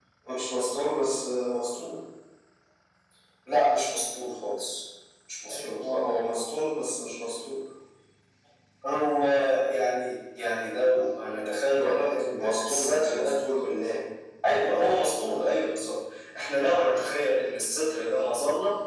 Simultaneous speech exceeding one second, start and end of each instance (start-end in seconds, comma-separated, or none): 11.8-13.4